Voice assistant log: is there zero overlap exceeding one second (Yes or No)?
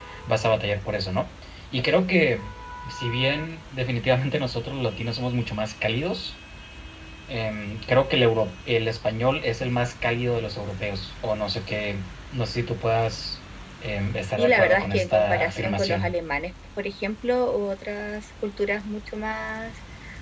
No